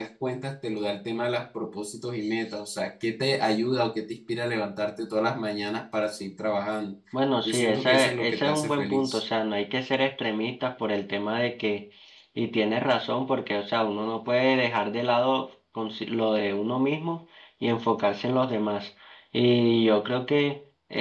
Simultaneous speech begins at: 7 s

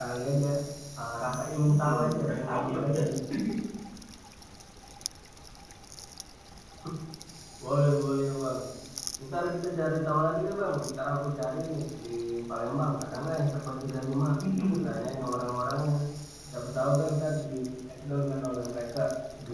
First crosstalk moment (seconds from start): 2 s

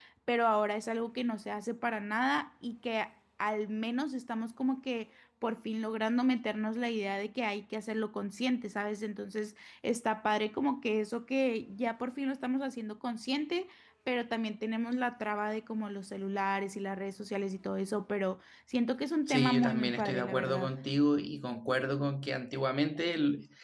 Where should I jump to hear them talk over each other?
19 s

